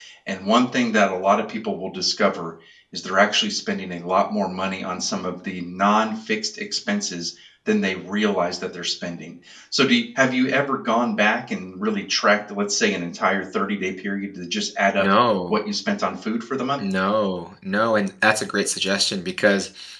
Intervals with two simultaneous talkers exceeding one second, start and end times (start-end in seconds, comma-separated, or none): none